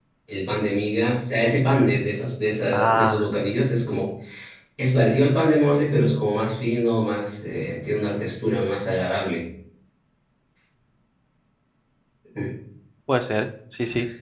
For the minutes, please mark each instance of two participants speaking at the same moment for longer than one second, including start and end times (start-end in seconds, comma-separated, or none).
none